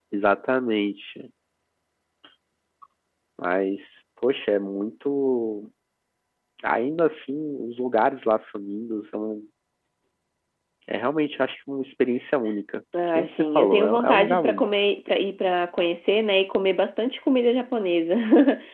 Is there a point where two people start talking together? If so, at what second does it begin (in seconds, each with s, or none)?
12.9 s